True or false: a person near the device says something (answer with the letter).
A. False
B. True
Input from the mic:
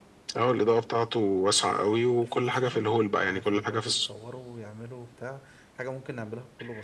B